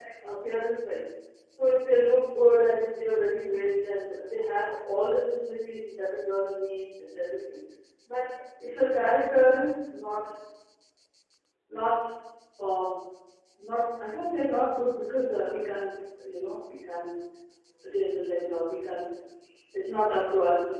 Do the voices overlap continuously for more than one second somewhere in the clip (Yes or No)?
No